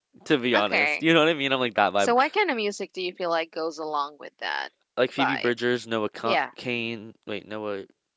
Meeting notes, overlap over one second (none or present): none